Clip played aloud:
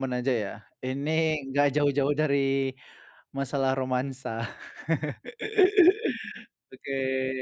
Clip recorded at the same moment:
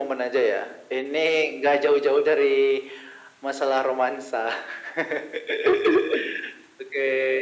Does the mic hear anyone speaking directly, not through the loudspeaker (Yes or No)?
No